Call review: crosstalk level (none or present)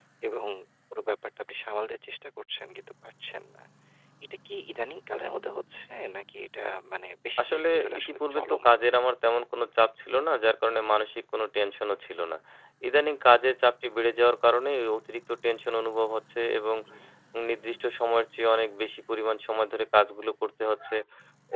present